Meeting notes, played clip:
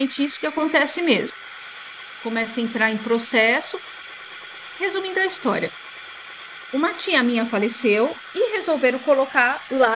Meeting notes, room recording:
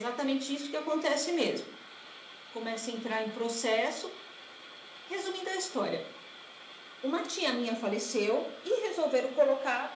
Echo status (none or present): present